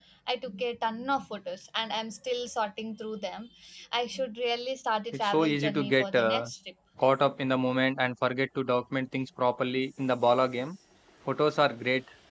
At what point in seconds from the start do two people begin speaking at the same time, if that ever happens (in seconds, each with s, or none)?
5.1 s